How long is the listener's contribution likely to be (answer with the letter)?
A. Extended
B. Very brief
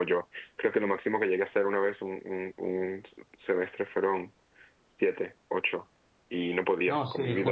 A